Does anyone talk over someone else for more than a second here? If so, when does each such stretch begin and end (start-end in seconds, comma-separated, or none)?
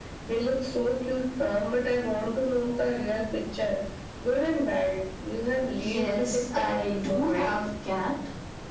5.8-7.5